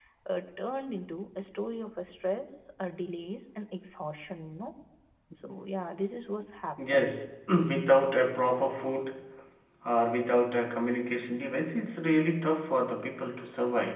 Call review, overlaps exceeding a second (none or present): none